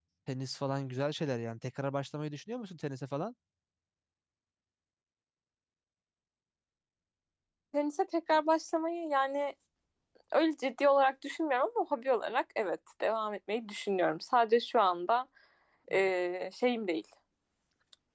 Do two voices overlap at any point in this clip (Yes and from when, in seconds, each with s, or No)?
No